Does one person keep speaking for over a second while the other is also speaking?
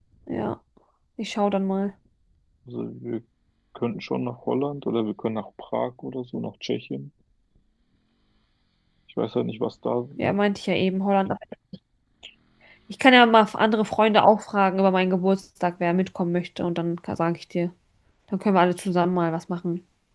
No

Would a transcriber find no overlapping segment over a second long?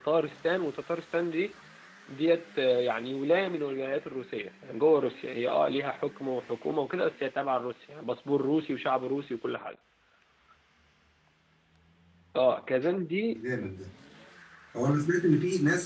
Yes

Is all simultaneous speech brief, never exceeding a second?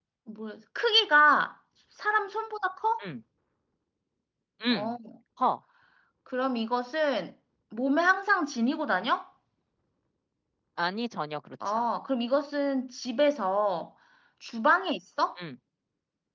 Yes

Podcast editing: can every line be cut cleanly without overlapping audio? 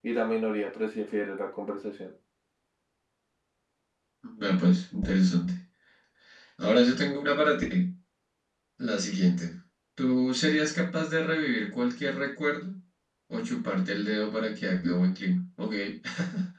Yes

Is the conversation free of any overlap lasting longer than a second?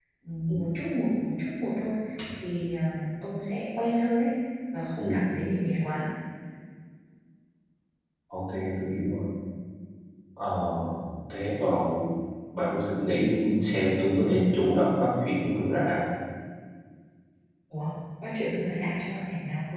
Yes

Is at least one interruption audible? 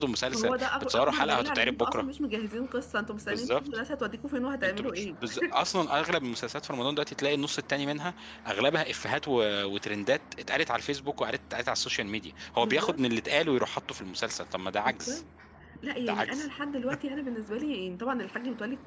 Yes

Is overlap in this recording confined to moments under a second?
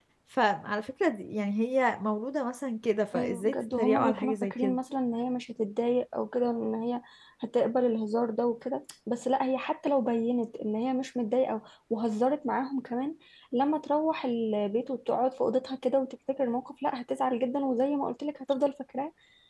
No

